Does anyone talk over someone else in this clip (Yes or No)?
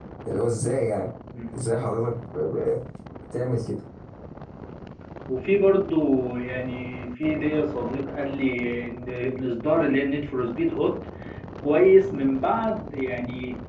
No